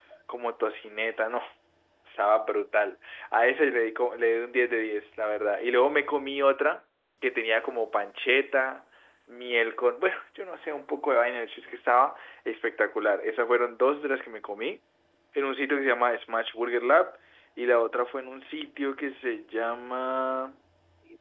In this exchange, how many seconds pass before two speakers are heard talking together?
none

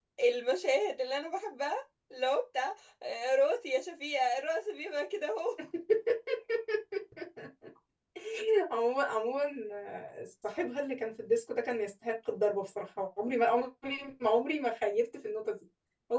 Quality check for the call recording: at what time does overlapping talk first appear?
none

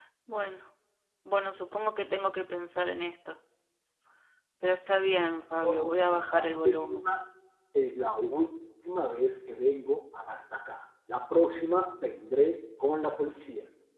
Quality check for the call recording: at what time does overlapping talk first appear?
5.6 s

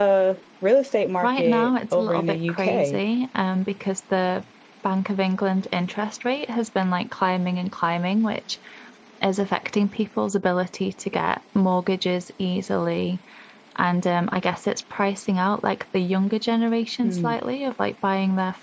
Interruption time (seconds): 1.2 s

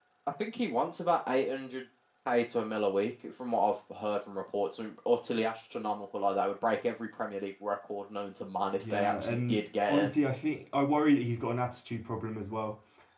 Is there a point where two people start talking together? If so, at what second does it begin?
8.8 s

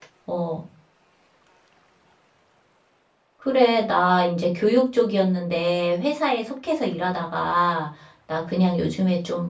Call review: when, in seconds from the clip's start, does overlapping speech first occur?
none

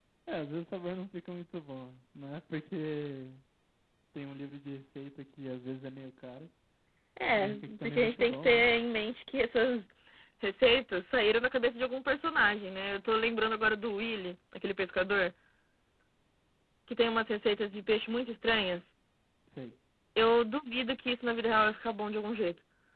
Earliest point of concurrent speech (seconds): 7.3 s

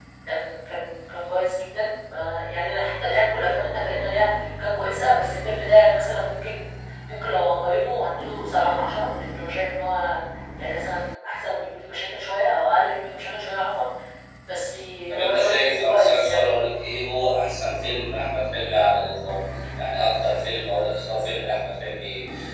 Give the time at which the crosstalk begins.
15.2 s

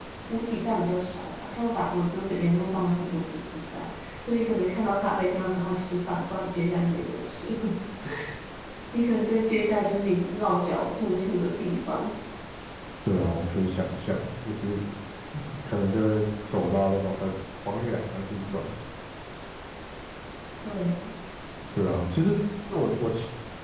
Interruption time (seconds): none

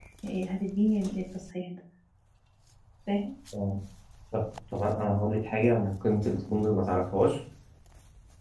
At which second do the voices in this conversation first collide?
none

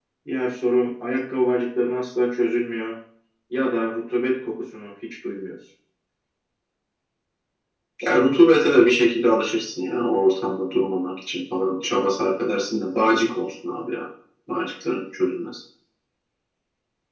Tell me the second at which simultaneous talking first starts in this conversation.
none

